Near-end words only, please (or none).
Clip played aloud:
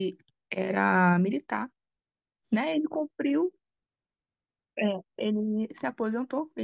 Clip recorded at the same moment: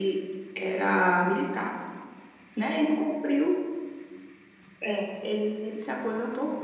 none